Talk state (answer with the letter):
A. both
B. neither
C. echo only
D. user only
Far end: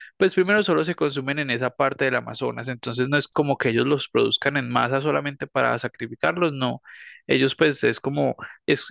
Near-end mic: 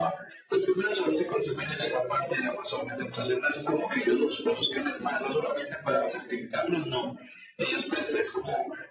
C